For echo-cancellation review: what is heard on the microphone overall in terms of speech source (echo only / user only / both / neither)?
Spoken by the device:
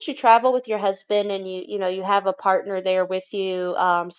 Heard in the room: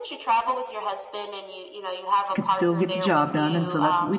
both